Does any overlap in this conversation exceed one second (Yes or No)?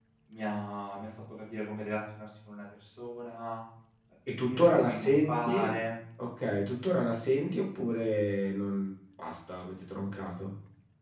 Yes